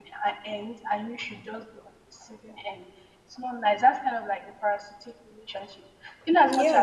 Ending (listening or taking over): listening